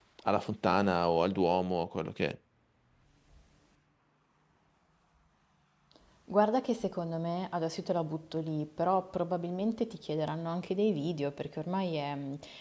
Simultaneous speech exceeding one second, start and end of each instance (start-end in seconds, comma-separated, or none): none